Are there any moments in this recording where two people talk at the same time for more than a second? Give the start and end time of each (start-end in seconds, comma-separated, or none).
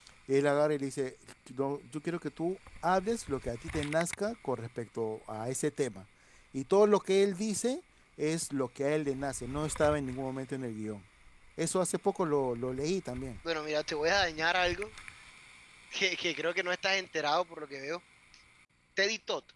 none